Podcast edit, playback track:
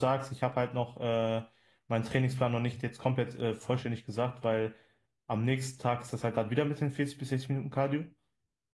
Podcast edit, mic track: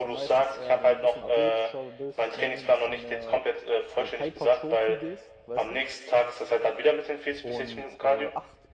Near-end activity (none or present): present